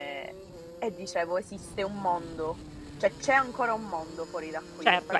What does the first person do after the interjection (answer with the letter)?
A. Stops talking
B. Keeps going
A